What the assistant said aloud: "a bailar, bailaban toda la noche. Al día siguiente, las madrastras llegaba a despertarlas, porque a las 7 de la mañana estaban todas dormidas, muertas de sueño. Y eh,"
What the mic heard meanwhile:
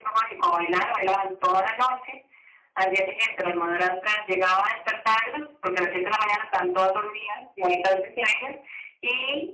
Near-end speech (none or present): none